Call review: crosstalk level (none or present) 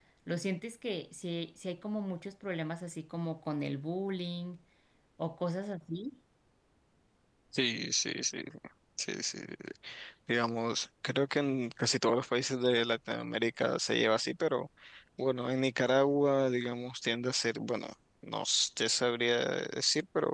none